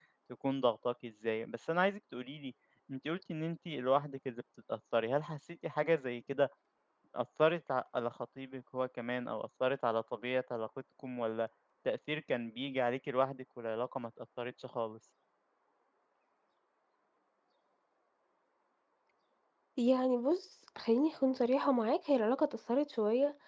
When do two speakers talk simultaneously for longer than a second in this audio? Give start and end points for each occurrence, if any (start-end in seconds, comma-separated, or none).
none